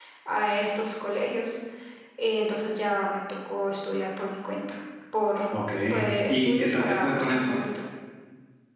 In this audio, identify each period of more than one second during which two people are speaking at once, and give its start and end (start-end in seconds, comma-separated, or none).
6.3-7.6